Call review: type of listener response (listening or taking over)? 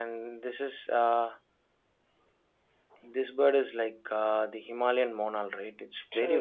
taking over